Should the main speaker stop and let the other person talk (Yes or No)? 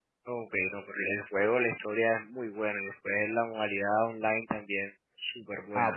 Yes